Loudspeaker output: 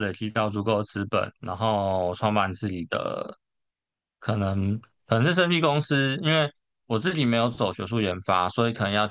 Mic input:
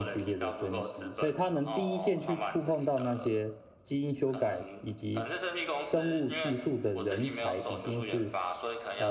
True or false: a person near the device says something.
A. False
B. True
B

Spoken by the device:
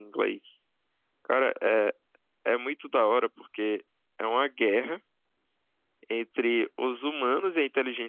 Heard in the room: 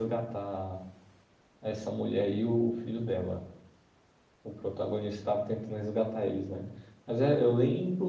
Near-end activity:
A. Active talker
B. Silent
A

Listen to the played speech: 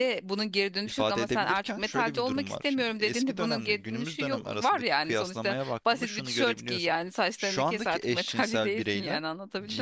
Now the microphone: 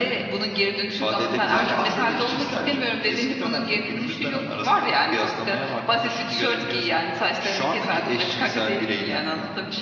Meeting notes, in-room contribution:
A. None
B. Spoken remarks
B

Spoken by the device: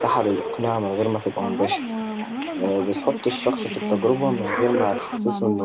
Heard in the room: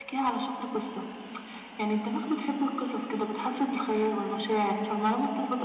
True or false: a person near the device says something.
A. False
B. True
B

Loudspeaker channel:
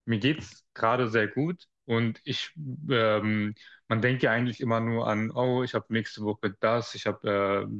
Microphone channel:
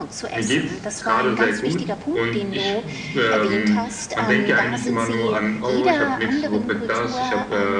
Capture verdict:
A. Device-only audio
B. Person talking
B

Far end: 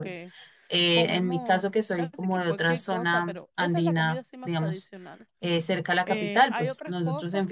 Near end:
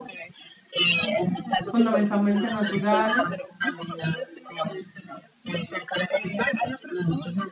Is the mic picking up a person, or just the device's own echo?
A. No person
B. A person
B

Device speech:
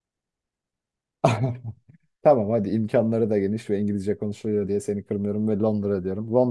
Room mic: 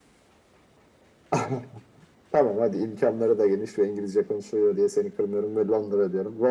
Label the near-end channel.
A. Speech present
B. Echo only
B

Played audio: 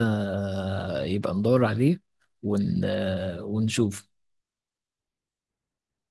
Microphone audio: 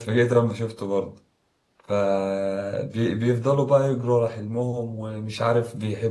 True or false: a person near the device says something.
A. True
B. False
A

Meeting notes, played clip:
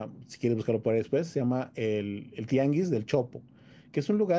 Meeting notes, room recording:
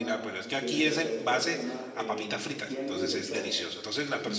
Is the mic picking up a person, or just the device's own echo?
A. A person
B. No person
A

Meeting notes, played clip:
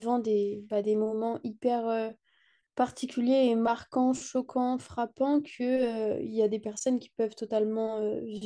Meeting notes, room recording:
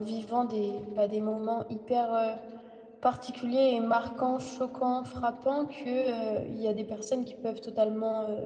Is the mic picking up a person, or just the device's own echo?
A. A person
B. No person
B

